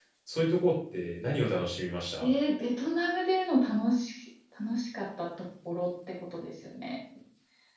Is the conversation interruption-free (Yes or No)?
Yes